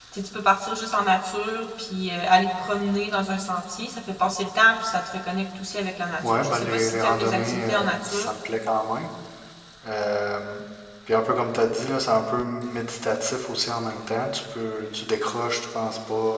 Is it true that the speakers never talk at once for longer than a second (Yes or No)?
No